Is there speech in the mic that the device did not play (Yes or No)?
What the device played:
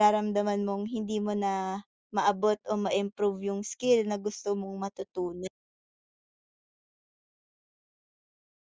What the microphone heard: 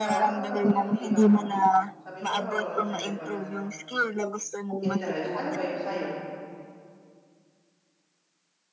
Yes